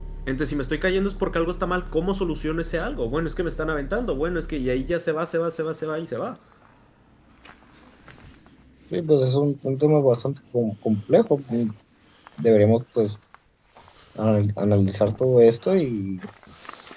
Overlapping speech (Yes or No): No